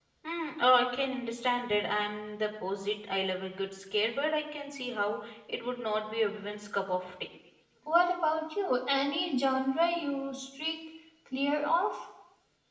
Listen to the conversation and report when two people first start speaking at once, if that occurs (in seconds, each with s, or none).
none